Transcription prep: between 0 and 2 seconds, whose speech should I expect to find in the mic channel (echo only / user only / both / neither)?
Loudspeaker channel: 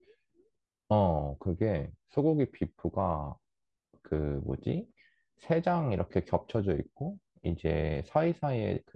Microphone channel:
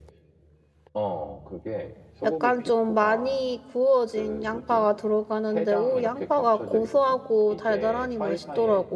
echo only